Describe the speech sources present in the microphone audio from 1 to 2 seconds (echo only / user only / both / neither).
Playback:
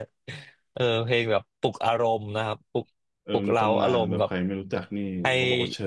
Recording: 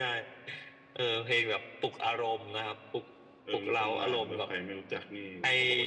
echo only